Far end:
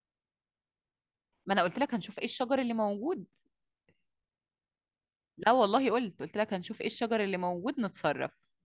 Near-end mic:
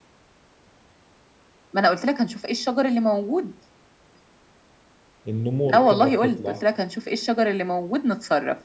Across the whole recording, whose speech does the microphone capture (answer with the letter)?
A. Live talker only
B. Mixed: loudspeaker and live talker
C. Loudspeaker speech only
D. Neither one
B